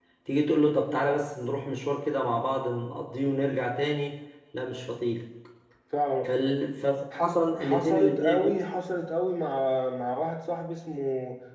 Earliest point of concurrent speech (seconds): 7.2 s

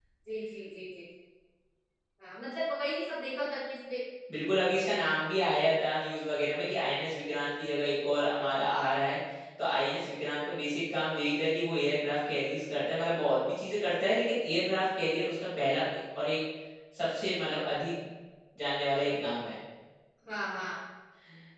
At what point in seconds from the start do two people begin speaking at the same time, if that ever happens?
none

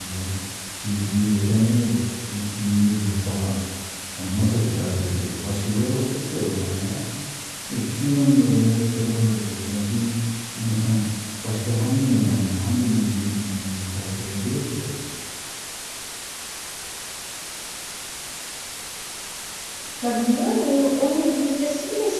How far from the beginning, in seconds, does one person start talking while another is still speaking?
none

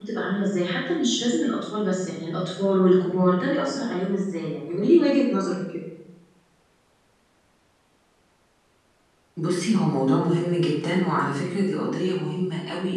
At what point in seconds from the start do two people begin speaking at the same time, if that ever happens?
none

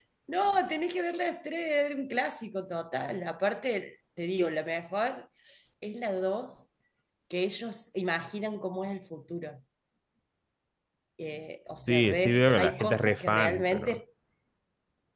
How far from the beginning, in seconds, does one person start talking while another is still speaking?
11.7 s

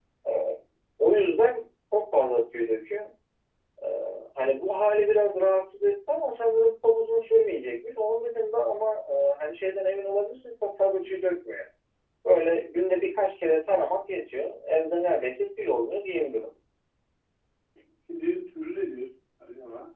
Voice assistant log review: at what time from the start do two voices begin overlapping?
none

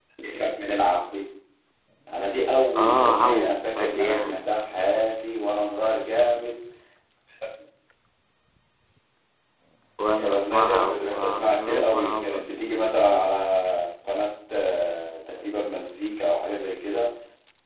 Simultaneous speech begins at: 2.8 s

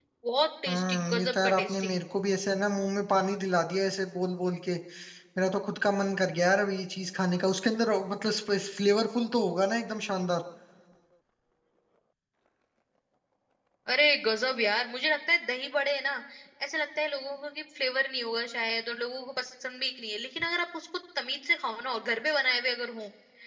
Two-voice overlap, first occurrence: 0.7 s

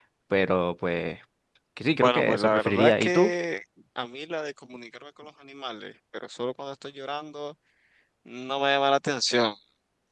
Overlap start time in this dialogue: 2.0 s

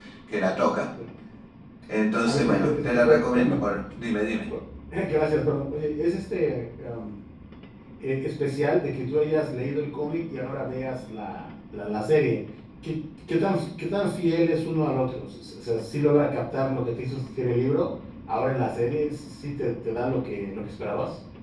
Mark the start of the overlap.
2.3 s

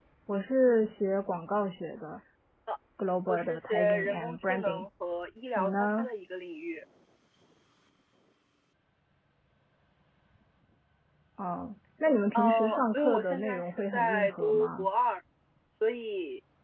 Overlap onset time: 3.3 s

